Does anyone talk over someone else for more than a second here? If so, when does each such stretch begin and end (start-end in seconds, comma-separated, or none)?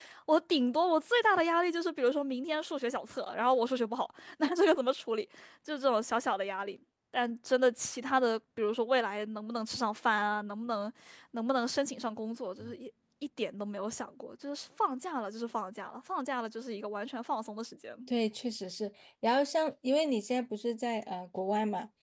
none